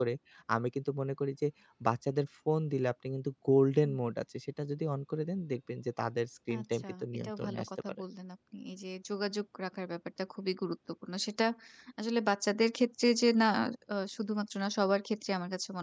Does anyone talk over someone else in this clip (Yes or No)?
Yes